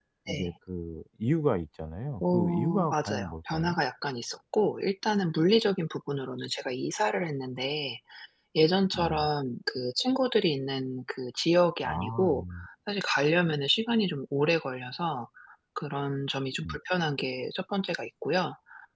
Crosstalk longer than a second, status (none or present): present